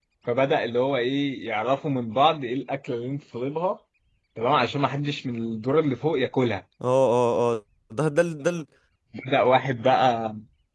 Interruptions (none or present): none